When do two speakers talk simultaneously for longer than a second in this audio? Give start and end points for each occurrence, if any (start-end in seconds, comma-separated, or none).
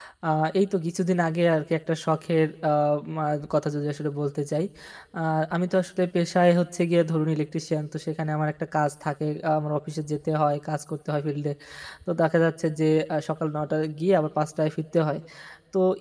none